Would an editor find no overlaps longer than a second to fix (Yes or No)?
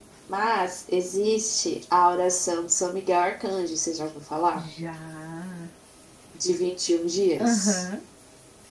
Yes